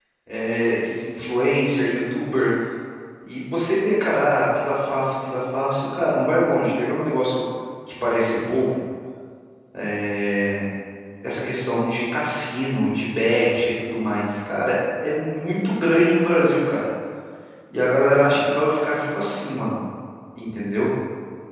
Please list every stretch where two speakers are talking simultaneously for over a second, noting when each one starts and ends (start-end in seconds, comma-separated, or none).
none